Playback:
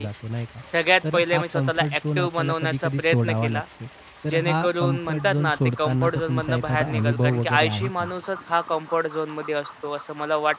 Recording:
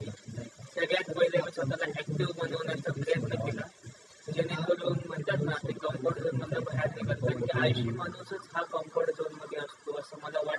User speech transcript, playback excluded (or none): हं, हं.